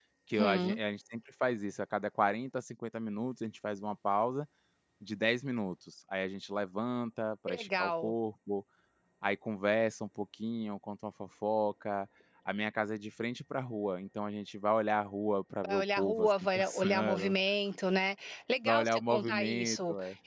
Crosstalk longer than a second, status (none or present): present